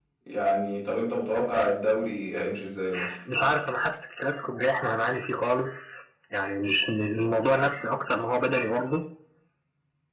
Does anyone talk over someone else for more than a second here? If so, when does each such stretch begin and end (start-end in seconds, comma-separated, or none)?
none